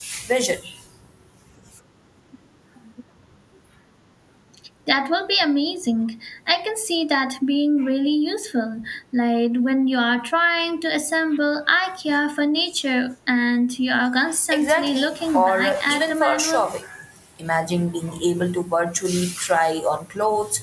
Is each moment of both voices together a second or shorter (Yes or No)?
No